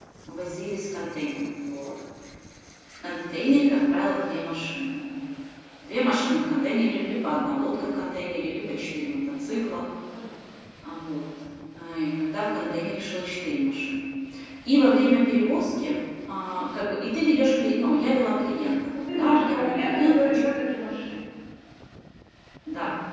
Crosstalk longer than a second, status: present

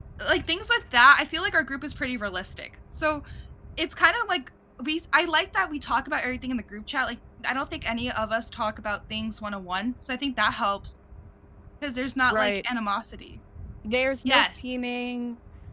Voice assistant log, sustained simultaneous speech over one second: none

